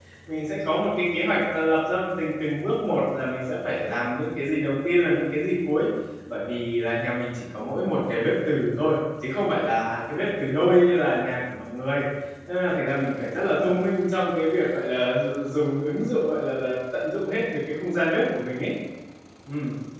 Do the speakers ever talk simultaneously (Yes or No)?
No